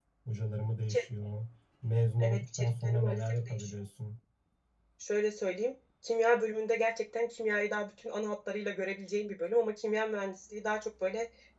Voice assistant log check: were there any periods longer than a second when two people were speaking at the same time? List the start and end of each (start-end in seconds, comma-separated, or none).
2.2-3.7